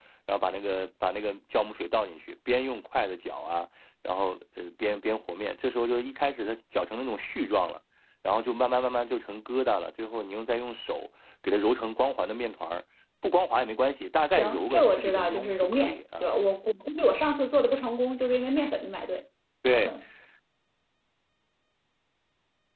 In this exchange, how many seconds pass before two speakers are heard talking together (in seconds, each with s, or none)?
14.3 s